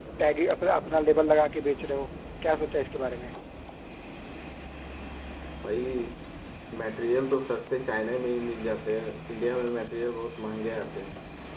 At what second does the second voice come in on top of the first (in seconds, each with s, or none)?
none